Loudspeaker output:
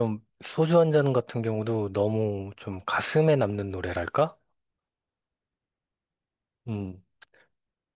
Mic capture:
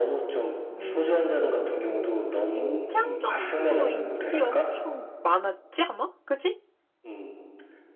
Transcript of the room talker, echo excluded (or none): 오. 임창정도 인기 엄청 많았지, 아마? 그치?